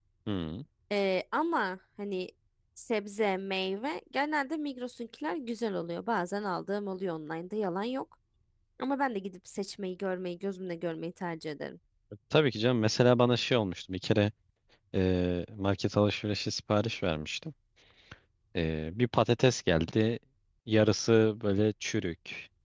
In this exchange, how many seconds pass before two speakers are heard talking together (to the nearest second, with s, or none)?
none